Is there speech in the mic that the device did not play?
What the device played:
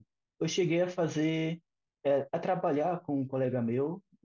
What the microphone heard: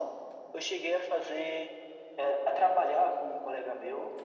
No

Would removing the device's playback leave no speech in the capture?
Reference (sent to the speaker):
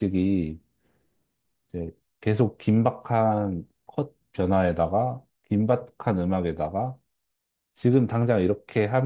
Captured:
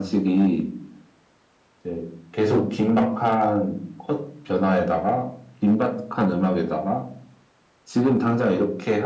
Yes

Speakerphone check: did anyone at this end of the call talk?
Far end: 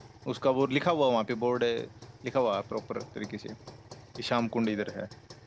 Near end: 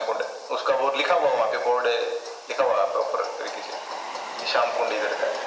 No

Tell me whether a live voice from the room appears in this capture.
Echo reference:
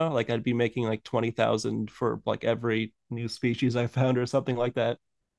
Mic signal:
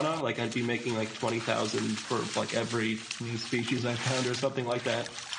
No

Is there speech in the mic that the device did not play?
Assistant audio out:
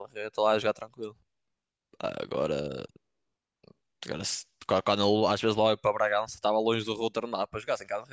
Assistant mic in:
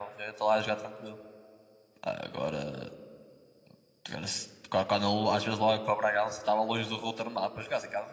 No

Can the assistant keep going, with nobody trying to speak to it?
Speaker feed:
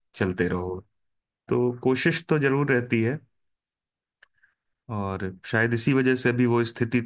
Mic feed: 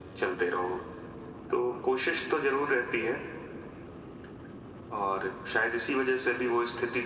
Yes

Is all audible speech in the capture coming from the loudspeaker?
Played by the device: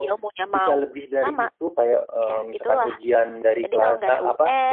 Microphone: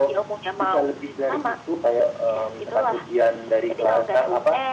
Yes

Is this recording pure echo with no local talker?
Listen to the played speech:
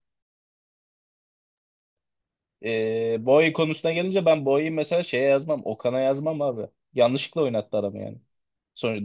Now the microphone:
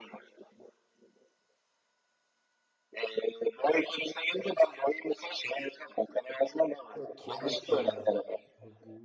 No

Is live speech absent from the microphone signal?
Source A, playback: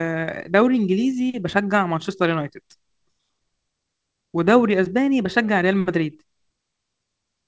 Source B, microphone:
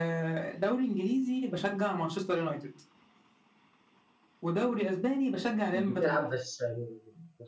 No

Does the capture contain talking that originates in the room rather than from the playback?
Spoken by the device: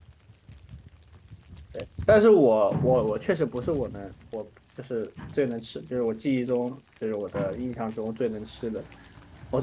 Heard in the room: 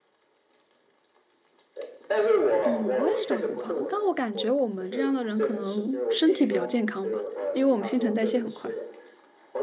Yes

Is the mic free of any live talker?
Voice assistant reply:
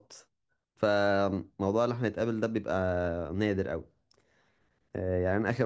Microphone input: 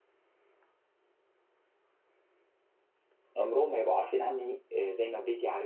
No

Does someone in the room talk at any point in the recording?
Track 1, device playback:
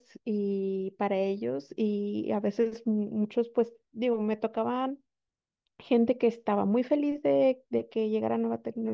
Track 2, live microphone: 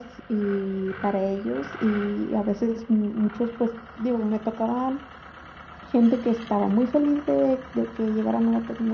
No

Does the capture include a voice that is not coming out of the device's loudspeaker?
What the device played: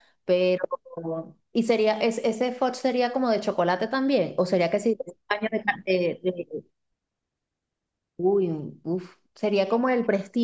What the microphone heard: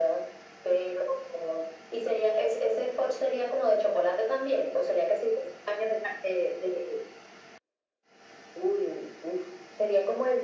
No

